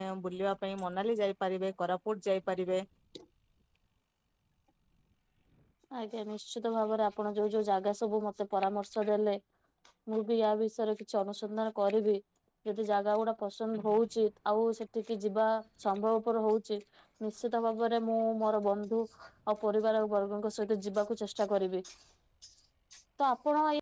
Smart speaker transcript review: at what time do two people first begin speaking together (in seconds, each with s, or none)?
none